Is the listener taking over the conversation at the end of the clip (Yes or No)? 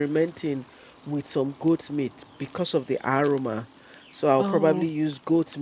No